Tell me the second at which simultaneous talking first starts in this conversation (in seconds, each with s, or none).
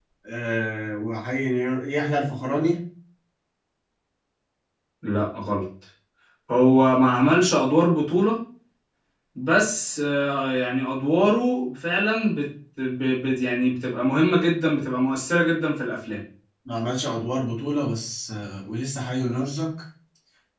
none